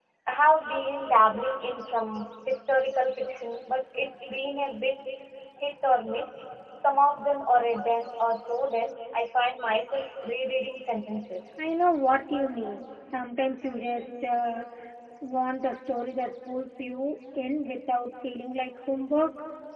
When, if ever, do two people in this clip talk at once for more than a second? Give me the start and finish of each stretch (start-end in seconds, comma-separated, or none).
none